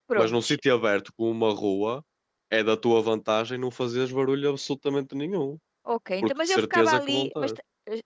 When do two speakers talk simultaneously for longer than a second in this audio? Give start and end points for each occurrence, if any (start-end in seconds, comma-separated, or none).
6.2-7.6